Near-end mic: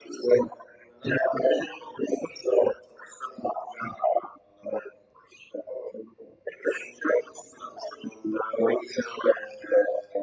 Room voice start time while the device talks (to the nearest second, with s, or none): none